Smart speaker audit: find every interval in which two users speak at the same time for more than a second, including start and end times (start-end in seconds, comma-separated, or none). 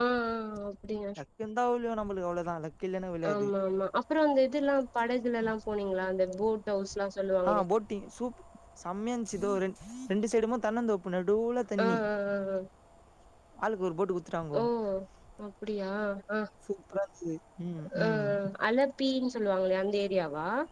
none